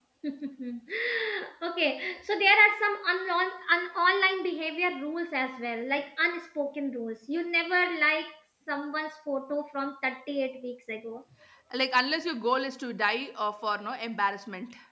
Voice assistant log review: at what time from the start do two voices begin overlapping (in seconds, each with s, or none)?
none